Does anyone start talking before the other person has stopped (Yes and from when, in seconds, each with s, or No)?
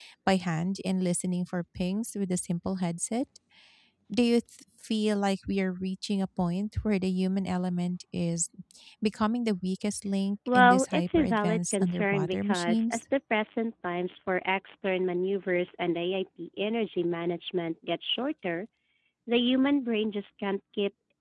Yes, from 10.5 s